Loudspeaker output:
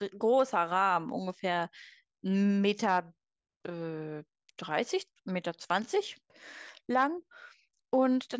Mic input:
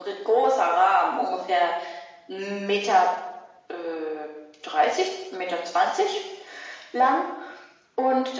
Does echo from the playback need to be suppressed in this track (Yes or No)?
Yes